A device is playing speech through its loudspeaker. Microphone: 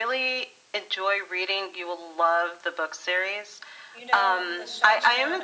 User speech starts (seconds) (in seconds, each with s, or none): 3.9 s